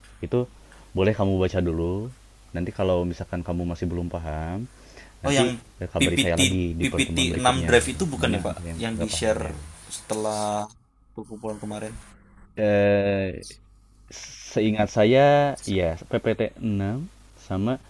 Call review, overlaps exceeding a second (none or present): present